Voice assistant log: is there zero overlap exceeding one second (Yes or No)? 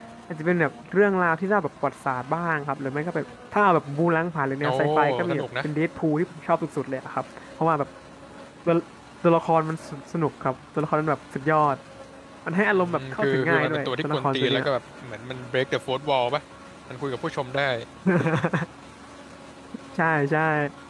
No